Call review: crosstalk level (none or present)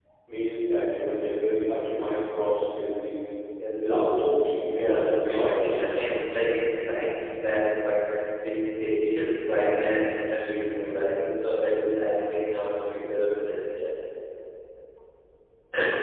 present